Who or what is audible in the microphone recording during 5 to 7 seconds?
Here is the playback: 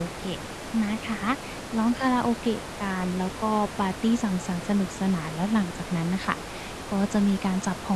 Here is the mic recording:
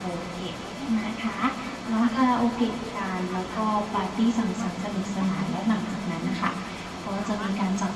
both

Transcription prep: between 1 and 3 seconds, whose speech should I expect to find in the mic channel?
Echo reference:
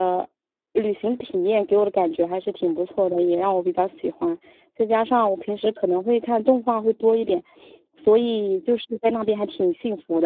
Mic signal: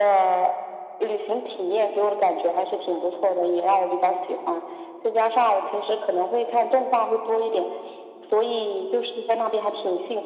echo only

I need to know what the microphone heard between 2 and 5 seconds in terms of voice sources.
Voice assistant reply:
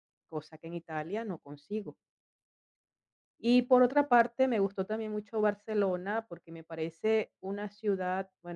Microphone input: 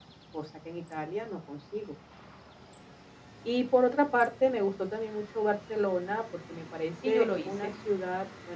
echo only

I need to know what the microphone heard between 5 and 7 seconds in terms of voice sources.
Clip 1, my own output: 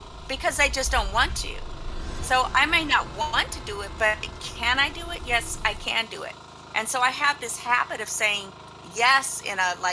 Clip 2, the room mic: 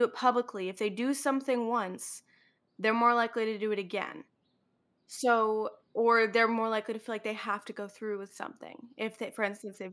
user only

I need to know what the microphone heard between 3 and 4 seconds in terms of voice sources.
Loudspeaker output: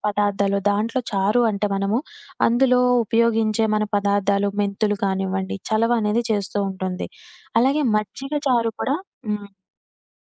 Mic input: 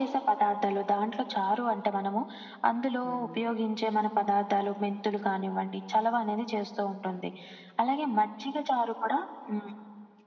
both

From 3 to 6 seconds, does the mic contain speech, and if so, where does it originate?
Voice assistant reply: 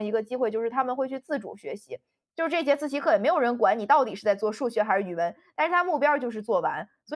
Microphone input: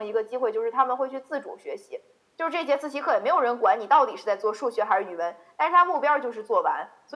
echo only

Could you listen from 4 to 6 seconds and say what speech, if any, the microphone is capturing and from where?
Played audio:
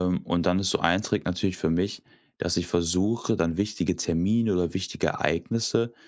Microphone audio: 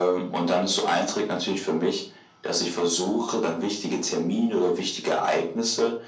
echo only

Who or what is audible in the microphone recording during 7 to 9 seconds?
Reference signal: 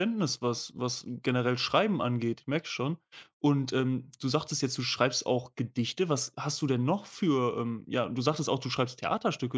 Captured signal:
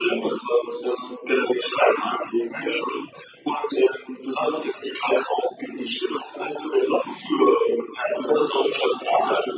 echo only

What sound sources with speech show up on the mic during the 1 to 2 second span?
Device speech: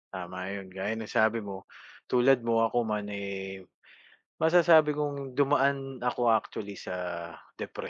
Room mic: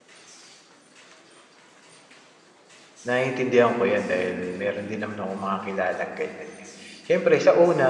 neither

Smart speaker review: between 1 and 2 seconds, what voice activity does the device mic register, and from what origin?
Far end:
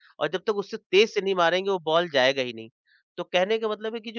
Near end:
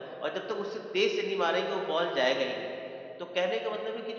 echo only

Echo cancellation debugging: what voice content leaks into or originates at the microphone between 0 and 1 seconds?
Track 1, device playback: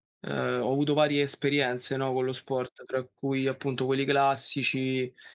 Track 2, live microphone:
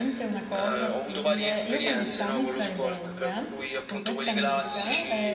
both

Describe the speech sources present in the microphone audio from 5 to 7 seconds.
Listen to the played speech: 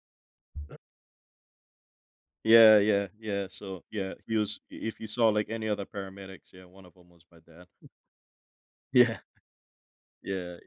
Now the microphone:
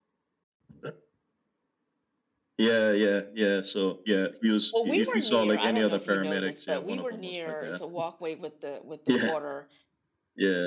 both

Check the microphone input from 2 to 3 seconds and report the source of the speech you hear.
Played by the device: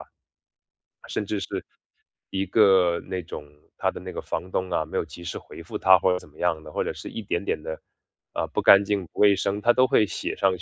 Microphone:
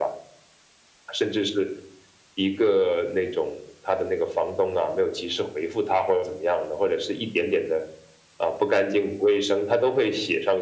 echo only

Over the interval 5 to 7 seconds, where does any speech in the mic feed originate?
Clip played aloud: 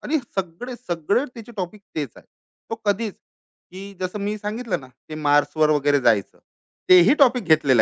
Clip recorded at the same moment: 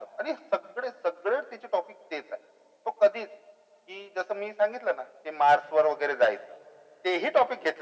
echo only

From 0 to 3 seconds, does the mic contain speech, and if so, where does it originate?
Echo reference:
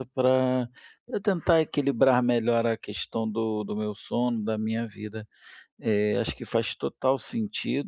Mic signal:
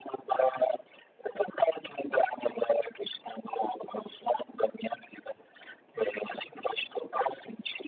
echo only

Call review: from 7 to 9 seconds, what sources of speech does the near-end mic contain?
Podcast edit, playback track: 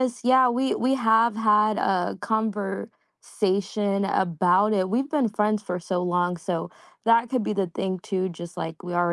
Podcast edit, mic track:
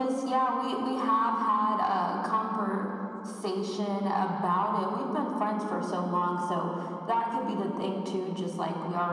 echo only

